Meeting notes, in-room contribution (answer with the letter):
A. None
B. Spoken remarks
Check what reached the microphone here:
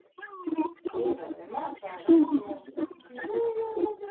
B